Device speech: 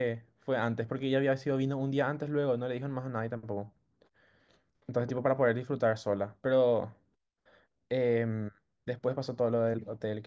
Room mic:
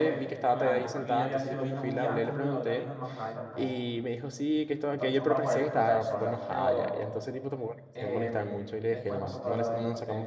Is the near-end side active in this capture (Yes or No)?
Yes